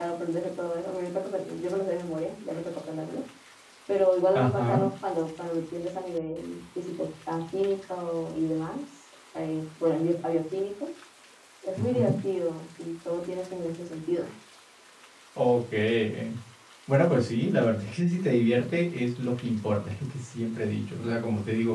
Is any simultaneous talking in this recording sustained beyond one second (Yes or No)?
No